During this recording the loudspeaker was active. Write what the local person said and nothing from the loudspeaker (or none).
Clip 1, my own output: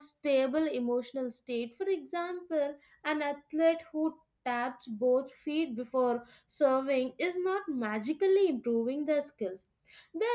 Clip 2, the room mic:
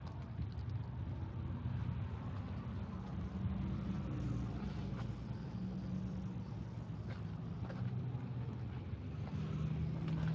none